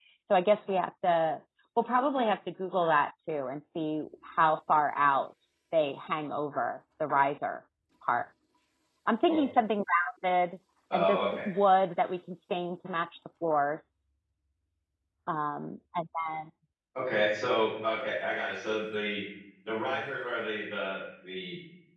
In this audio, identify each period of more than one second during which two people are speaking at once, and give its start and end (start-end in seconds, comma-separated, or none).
none